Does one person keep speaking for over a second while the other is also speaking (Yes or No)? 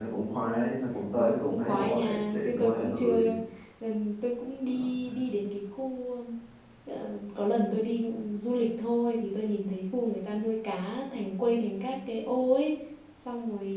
Yes